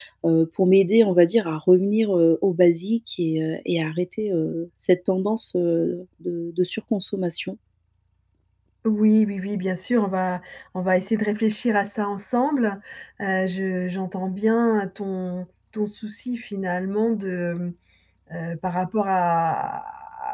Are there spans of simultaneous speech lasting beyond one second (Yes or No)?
No